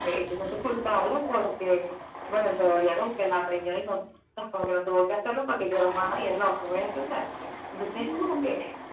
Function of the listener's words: listening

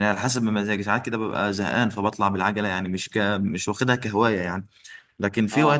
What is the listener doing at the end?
listening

